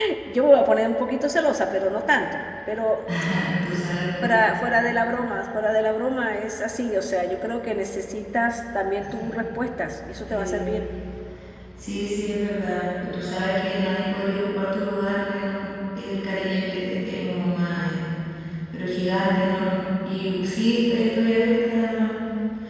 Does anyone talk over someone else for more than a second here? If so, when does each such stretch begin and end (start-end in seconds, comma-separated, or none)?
none